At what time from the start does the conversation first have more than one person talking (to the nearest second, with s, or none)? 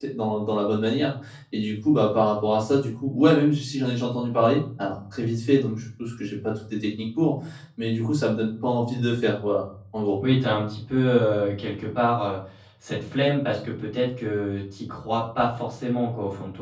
none